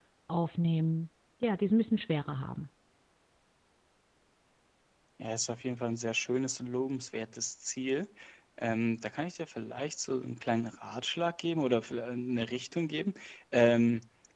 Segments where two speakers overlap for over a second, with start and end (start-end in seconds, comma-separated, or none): none